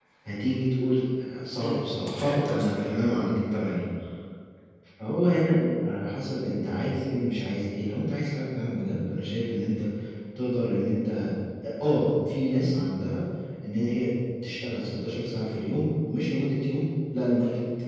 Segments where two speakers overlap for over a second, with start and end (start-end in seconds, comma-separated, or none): 1.6-2.9